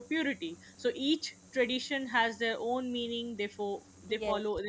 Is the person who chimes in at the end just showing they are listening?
Yes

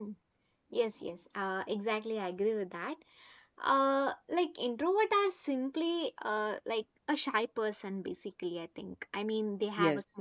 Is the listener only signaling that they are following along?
Yes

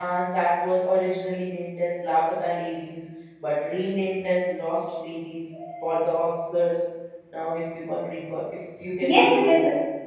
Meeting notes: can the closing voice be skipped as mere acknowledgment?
No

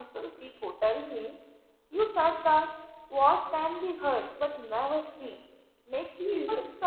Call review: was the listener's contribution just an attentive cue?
Yes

